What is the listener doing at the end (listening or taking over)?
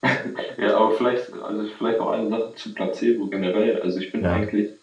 listening